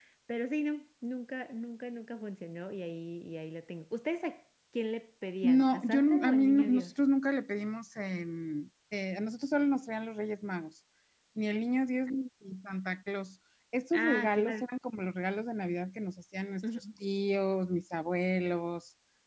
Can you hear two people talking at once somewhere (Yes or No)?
Yes